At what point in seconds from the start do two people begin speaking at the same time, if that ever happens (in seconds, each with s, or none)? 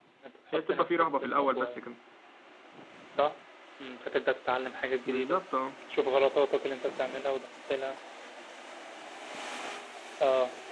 0.5 s